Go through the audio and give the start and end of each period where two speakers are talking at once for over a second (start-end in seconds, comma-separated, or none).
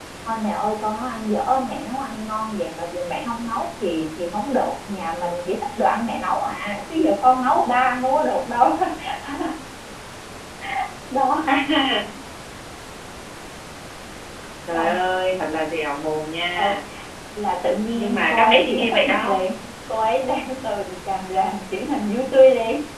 17.9-19.4